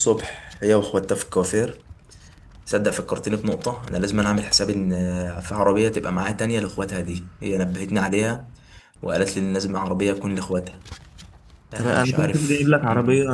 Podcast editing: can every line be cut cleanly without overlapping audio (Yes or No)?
No